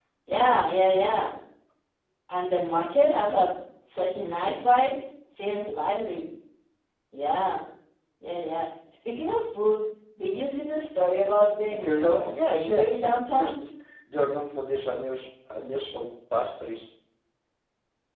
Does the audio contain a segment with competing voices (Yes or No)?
Yes